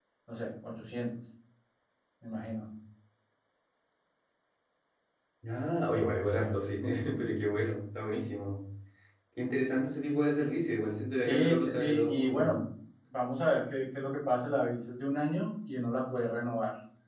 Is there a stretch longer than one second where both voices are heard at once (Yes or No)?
Yes